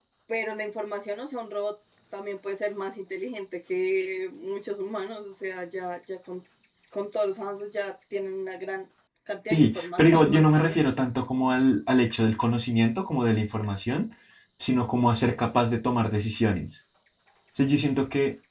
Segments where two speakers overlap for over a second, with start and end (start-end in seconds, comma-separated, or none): 9.5-10.9